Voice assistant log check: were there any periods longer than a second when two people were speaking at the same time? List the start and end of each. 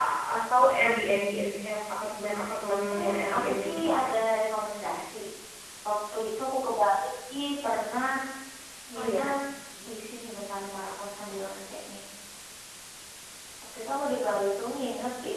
2.9-4.1

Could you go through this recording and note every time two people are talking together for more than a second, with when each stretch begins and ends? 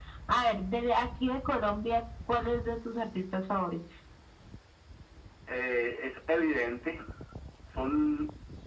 none

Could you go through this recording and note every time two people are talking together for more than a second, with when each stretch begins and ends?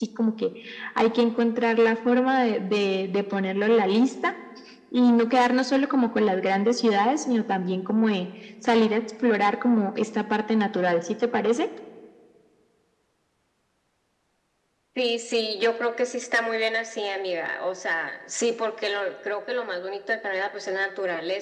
none

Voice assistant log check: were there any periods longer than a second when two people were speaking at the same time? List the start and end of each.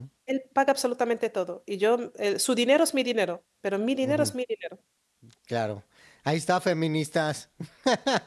none

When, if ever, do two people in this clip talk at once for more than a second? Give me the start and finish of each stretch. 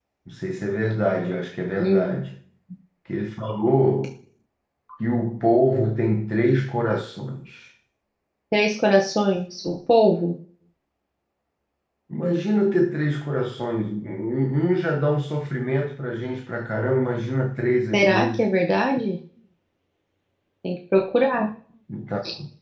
none

